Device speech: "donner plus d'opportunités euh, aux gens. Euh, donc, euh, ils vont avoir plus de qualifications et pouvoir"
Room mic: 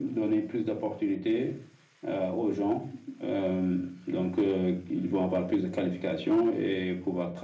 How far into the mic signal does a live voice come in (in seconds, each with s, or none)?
none